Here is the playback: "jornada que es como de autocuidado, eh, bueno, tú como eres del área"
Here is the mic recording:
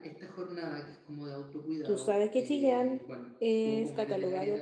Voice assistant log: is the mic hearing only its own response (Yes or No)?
No